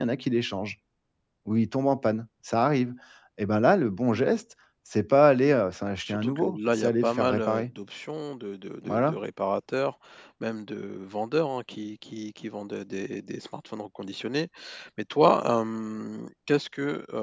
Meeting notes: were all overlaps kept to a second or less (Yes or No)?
No